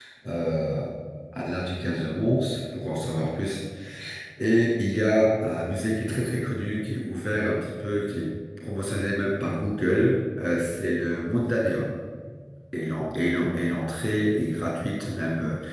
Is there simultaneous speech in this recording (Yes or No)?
No